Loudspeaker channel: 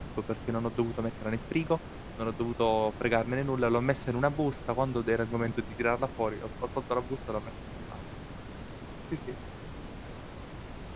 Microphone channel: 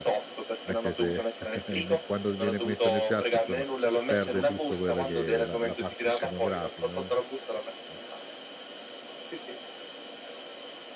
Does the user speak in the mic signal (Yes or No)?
Yes